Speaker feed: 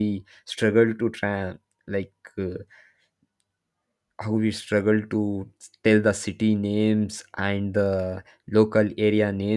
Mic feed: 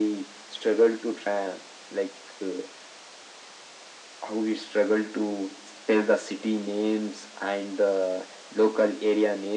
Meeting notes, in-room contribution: none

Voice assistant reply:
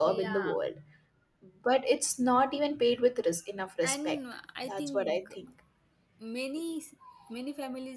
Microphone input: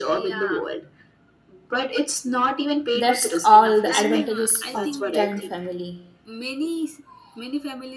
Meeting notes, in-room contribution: present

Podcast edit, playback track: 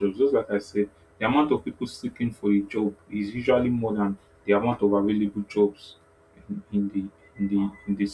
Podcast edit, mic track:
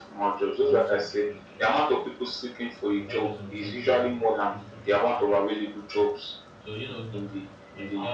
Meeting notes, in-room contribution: present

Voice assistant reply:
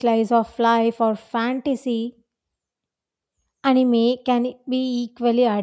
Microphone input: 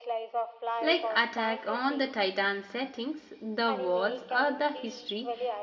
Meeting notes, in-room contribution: present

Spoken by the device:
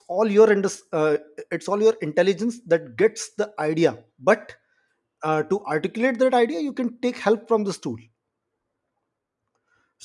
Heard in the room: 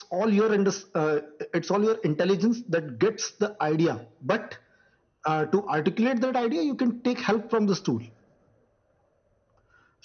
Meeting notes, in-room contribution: none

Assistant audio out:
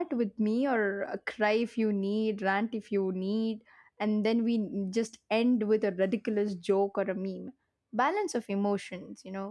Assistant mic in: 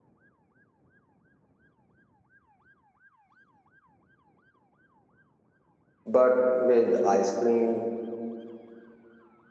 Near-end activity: present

